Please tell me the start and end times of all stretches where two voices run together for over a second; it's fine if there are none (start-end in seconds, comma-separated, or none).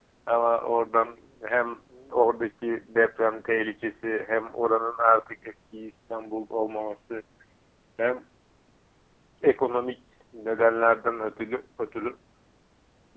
none